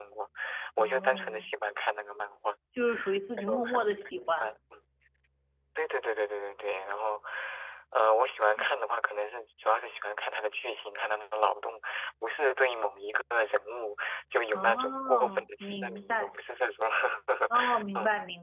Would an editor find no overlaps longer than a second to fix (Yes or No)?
No